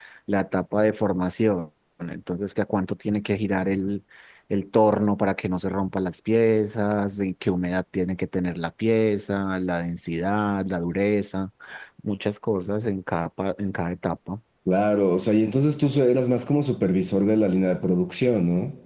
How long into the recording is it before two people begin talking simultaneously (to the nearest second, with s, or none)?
none